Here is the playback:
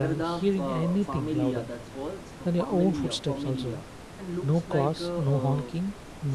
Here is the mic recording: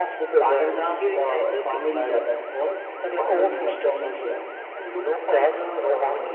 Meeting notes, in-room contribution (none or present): none